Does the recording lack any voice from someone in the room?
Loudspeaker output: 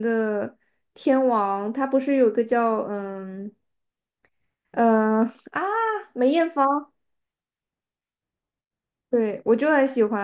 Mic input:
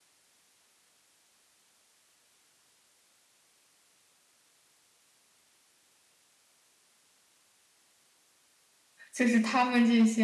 No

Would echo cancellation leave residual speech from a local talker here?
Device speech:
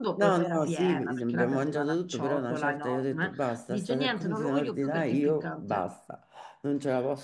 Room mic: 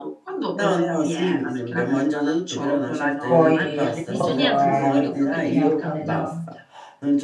Yes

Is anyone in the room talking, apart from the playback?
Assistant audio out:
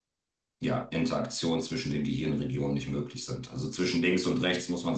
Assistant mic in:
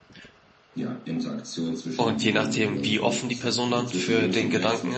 Yes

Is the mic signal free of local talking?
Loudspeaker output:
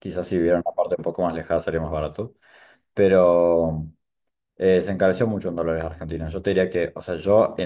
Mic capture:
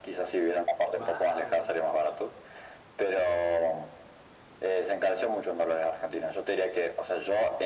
No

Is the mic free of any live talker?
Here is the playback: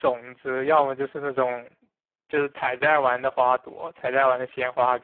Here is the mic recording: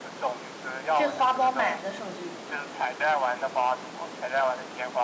No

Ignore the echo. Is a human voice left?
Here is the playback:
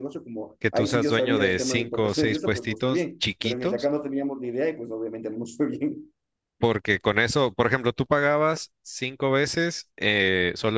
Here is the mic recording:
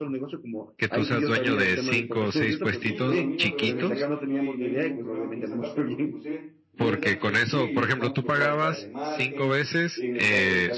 Yes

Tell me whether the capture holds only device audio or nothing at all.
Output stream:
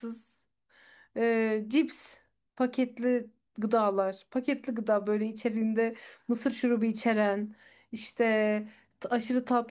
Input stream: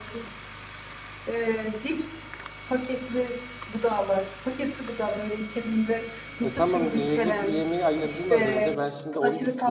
No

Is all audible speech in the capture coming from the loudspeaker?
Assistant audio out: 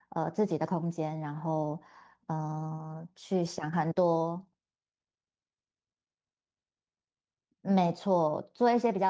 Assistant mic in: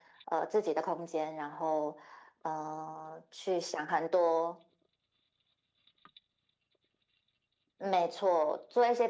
Yes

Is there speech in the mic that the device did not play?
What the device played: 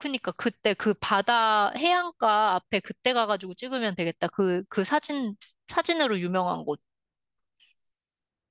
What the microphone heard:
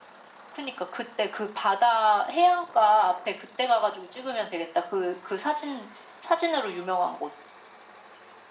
No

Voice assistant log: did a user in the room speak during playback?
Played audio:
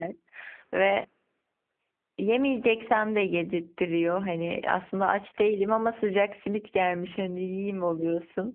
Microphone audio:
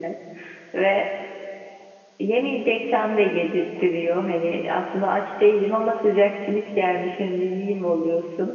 No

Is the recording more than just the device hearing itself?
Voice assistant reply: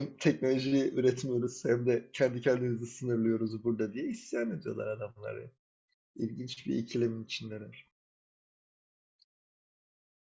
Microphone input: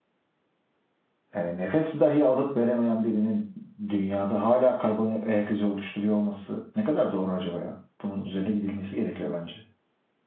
Yes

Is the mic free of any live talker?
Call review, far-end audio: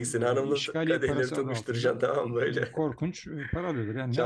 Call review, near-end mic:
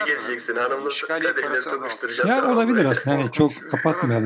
No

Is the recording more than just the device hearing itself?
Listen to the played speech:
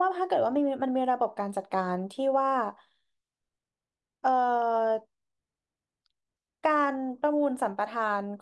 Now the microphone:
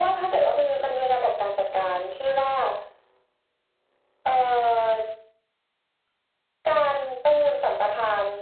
No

